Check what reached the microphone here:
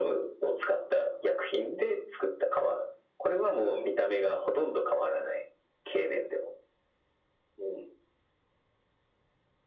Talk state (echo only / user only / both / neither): echo only